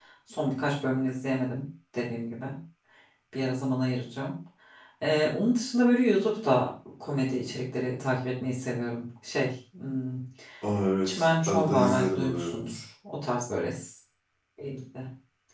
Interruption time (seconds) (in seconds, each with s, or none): 11.0 s